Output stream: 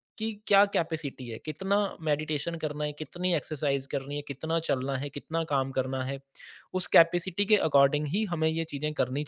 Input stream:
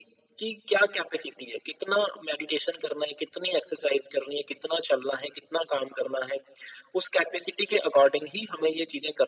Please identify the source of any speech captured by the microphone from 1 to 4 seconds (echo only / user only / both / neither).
echo only